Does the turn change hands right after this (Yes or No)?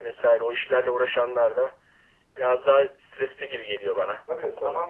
Yes